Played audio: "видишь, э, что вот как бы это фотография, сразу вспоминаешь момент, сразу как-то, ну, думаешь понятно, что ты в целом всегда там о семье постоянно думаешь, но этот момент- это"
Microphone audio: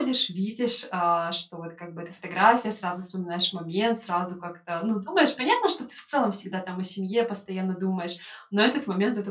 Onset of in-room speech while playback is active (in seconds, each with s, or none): none